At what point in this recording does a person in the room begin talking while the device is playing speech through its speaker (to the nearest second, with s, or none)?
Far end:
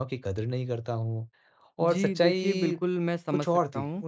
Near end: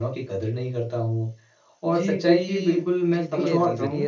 3 s